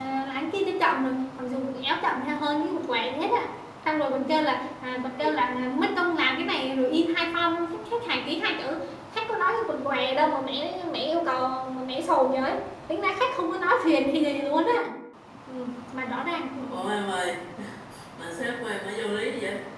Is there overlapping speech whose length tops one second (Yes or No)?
No